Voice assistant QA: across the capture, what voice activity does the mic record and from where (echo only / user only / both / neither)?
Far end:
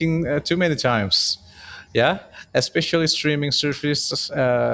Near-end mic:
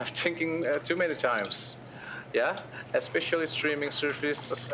echo only